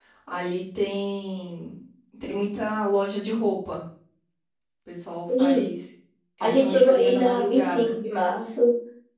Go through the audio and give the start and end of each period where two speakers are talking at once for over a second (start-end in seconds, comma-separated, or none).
6.4-8.0